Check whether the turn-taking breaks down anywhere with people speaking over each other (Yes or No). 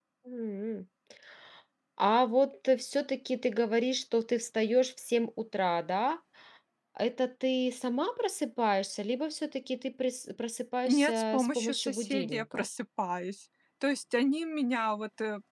Yes